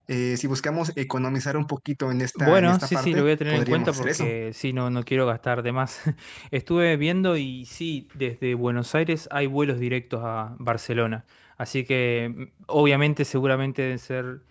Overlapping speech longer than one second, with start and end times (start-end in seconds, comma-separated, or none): 2.4-4.3